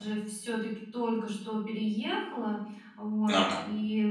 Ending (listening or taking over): listening